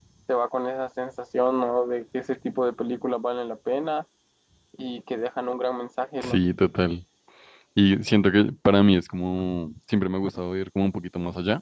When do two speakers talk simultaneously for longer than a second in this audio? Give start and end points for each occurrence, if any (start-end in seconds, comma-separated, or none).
none